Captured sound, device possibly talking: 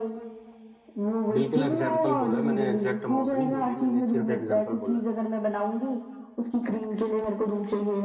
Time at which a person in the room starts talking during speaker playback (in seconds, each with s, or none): 1.3 s